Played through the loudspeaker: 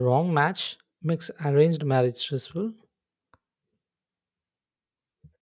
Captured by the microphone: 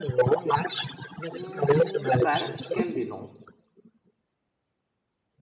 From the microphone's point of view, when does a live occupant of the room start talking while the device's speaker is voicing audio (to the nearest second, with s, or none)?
1 s